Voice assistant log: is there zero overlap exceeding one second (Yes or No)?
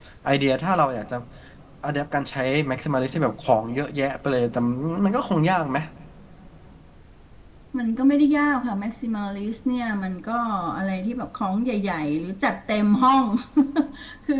Yes